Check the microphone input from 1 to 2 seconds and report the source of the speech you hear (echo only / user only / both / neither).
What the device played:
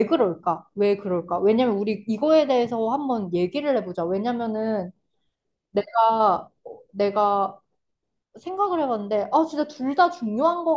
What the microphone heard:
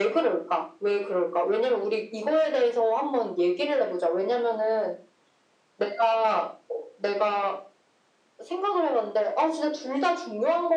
echo only